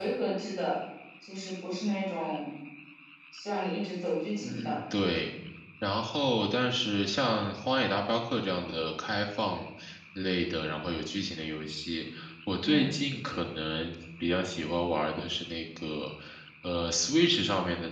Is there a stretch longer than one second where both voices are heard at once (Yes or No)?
No